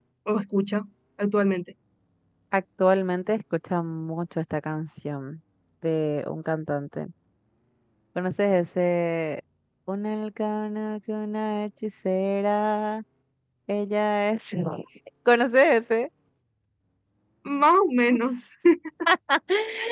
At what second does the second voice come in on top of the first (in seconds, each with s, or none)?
none